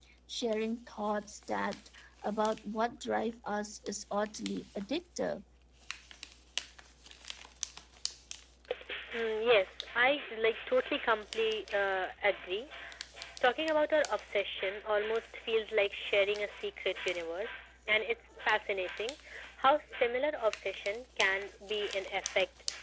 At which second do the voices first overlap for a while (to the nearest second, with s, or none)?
none